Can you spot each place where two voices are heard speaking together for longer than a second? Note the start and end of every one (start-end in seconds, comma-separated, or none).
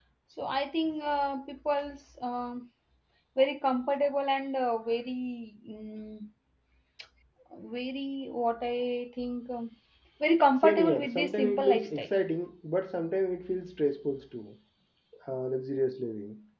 10.6-12.1